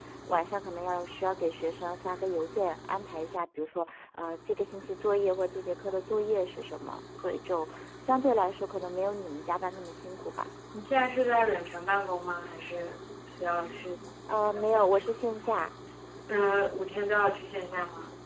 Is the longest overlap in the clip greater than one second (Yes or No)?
No